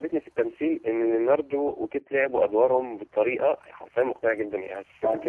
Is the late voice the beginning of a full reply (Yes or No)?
No